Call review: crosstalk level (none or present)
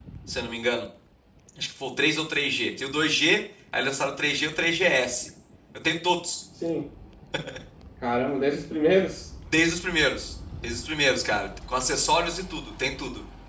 none